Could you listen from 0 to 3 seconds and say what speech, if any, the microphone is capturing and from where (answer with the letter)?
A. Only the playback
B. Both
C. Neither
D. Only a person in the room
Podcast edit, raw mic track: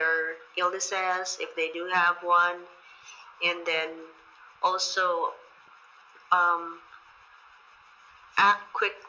A